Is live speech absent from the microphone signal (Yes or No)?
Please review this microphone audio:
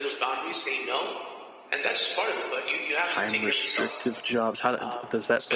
No